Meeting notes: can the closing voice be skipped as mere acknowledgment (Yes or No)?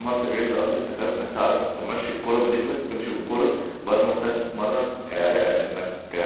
Yes